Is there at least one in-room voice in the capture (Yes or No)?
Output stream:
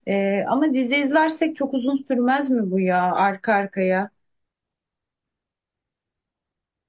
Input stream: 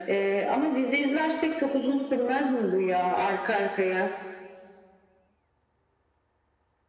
No